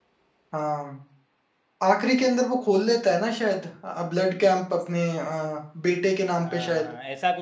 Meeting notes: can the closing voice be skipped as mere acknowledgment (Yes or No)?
No